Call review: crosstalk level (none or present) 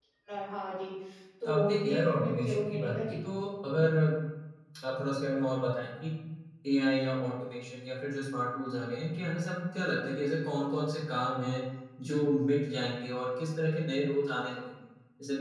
present